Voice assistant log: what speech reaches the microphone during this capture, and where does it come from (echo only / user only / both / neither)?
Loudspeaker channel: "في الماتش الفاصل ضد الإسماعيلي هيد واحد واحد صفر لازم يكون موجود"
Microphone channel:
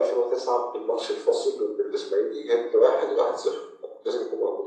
echo only